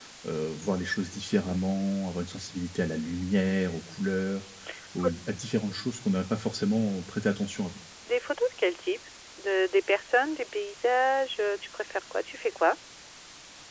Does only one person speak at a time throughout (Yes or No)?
Yes